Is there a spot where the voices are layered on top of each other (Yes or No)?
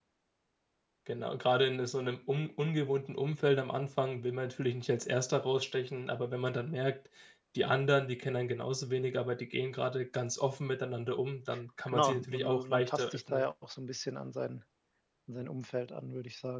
Yes